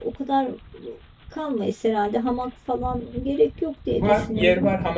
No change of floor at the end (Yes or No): No